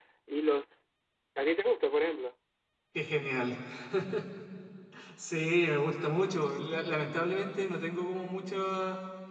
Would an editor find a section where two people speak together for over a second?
No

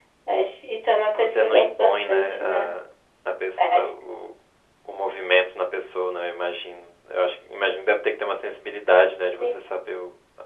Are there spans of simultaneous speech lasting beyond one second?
Yes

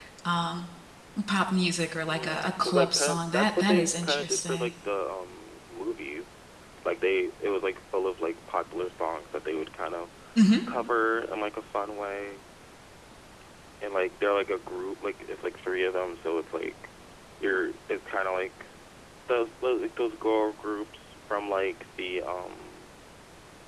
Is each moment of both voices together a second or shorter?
No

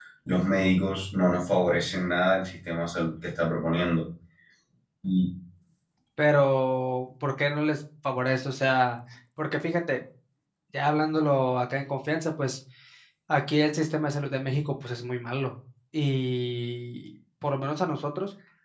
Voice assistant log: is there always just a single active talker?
Yes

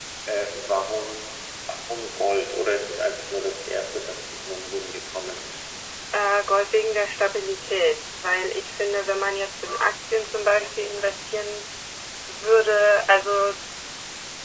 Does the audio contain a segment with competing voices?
No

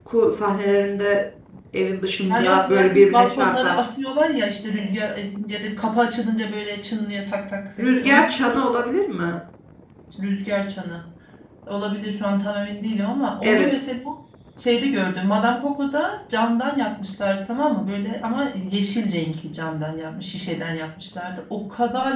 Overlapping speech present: Yes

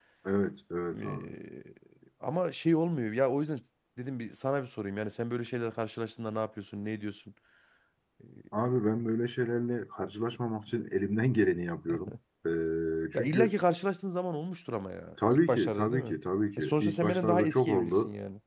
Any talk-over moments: Yes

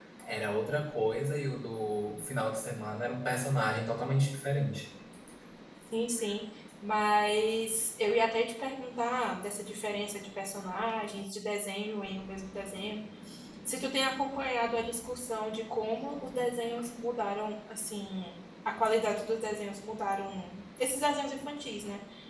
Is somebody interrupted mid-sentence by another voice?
No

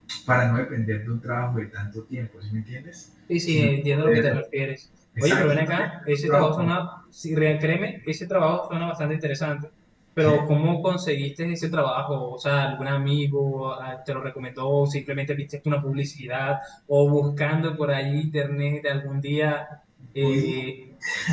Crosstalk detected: Yes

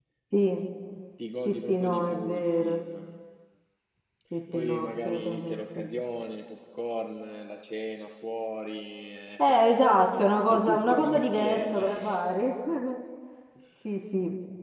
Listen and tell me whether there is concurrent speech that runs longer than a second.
Yes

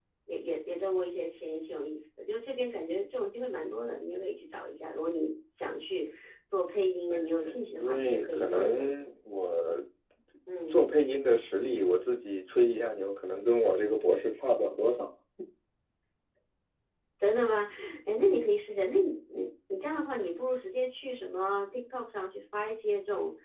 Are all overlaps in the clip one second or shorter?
No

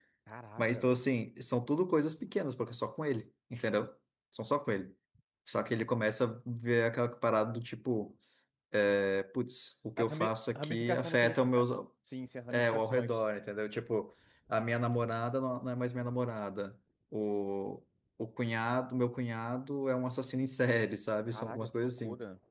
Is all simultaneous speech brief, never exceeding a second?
No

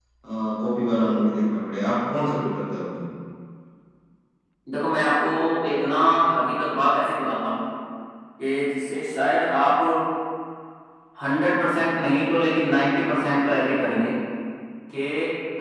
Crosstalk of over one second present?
No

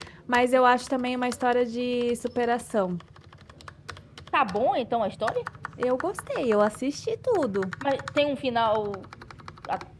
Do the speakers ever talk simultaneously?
No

